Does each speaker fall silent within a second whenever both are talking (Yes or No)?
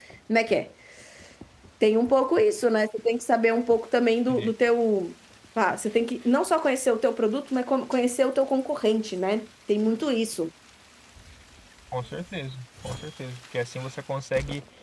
Yes